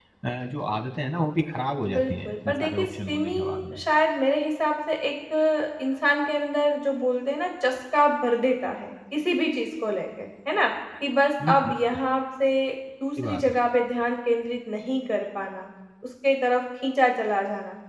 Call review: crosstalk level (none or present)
present